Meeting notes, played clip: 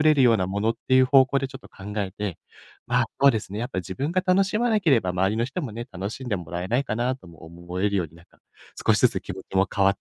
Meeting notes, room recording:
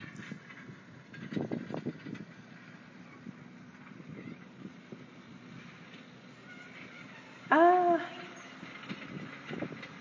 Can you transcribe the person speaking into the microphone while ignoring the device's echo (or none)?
あ、ああ、